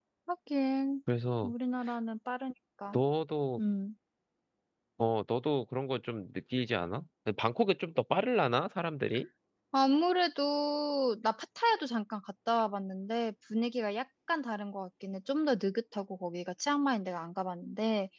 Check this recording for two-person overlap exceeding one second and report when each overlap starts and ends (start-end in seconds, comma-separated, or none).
none